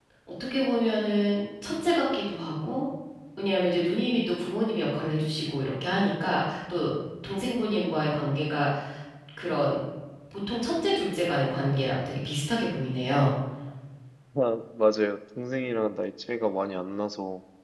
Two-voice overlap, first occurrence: none

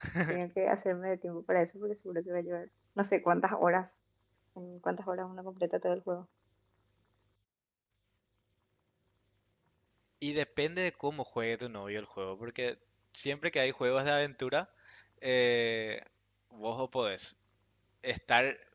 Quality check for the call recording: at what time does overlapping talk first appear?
none

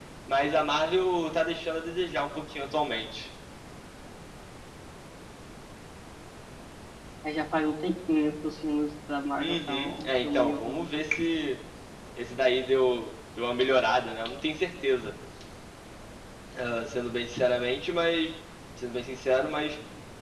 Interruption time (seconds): 9 s

